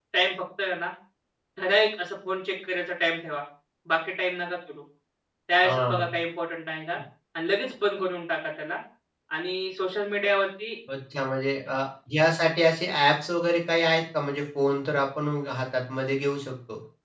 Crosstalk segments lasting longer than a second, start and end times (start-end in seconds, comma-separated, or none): none